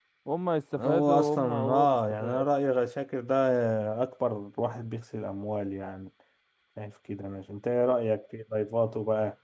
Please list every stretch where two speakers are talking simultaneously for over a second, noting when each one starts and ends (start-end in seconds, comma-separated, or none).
0.8-2.4